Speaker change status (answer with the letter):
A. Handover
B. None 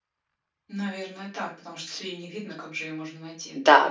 A